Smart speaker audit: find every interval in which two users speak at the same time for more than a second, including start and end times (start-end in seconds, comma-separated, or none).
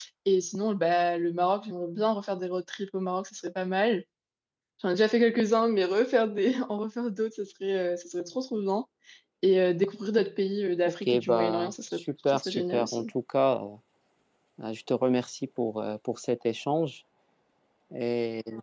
10.8-13.1